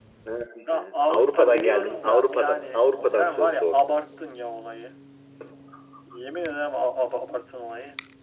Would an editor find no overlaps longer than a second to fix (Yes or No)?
No